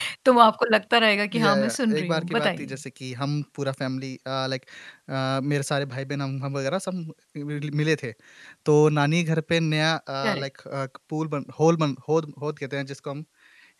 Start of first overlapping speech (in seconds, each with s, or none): 1.3 s